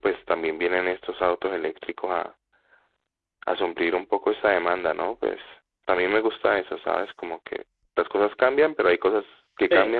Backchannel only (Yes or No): No